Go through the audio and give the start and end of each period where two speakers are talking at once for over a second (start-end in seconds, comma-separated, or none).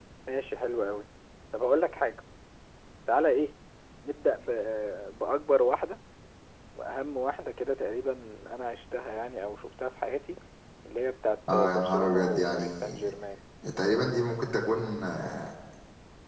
11.5-12.8